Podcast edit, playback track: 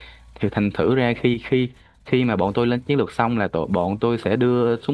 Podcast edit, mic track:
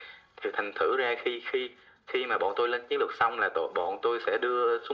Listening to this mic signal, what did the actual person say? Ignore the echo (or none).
none